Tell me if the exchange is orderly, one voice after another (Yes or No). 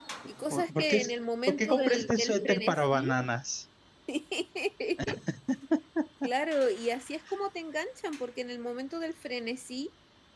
No